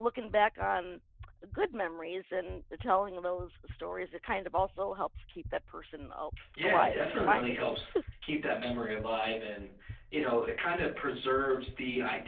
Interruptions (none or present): present